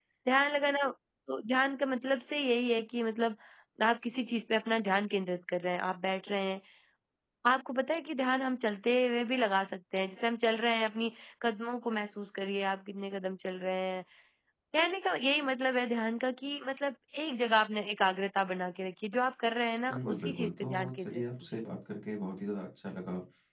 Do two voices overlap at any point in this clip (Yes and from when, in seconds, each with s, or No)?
Yes, from 19.8 s